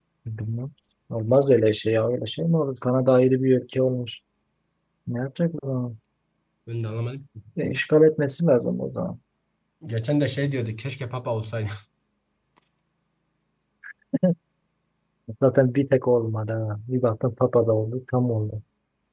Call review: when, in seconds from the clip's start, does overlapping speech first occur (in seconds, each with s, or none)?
none